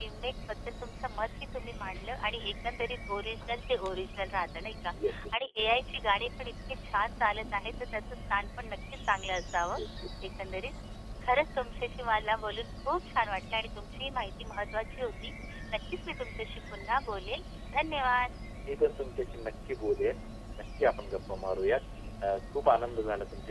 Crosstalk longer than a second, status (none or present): none